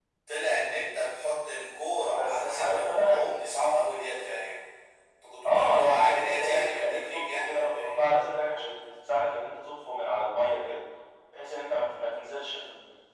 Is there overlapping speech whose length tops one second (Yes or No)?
Yes